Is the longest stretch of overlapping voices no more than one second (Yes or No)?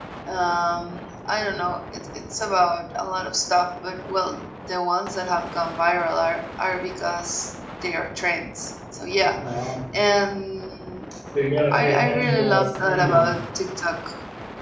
No